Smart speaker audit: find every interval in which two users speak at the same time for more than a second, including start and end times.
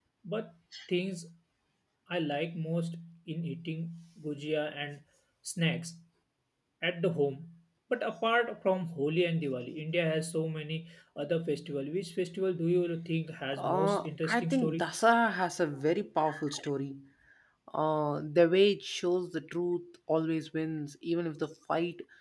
13.5-14.9

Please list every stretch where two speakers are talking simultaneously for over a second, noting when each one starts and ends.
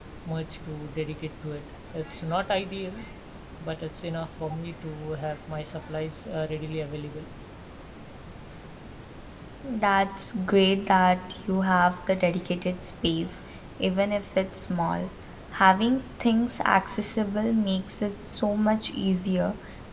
none

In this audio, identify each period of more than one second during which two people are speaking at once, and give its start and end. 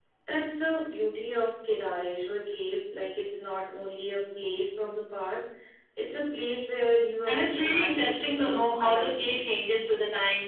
7.2-9.4

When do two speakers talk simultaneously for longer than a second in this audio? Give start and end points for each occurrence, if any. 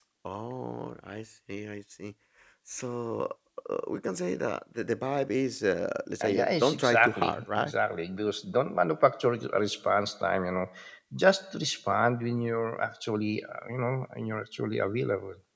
6.2-7.7

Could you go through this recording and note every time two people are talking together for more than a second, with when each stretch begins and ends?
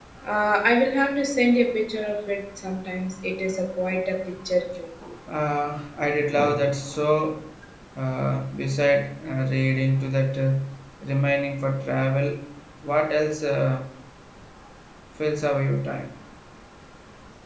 none

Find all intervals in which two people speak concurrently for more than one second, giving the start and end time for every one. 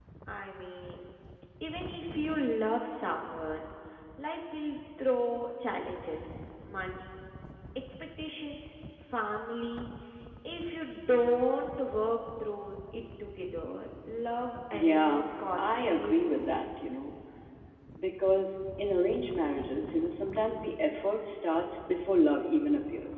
14.7-16.4

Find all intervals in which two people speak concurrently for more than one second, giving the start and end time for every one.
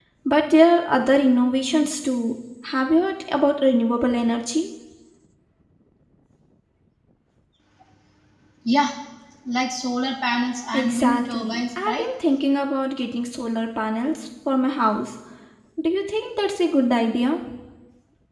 10.7-12.0

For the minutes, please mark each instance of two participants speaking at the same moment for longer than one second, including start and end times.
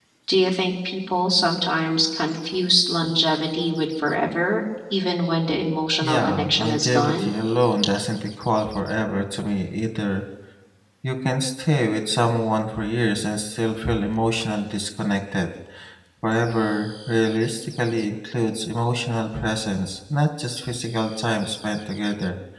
6.0-7.3

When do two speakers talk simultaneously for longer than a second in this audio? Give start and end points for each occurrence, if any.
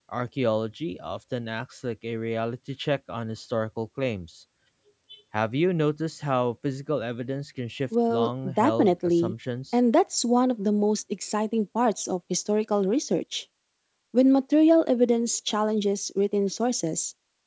8.1-9.3

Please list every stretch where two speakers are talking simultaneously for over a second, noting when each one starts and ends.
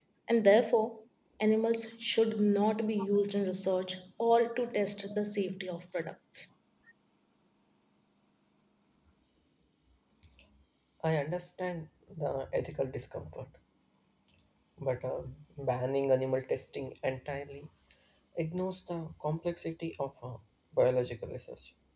none

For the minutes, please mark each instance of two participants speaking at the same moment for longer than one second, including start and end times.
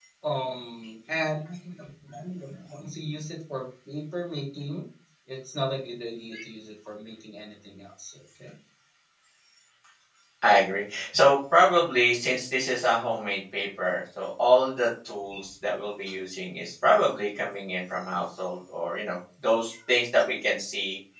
none

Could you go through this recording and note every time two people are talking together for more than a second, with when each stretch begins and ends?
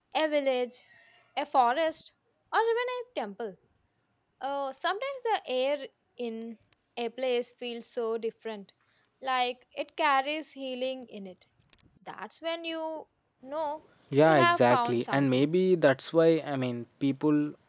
14.2-15.4

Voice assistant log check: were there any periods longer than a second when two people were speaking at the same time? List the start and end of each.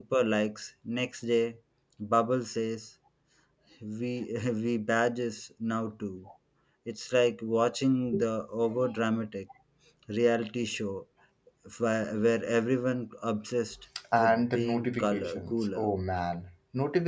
14.2-15.9

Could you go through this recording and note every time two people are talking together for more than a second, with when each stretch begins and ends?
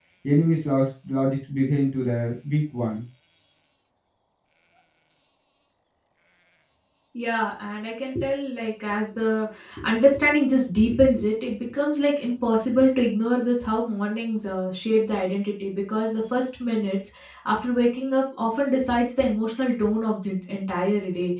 none

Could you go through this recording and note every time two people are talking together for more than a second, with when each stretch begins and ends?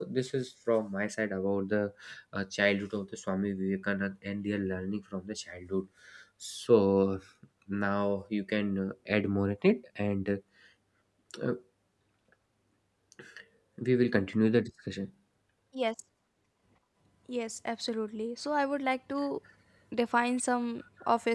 none

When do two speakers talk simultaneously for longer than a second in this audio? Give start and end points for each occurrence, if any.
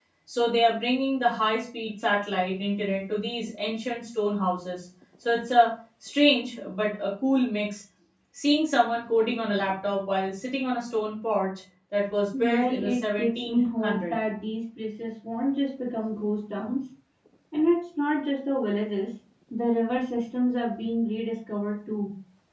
12.4-14.2

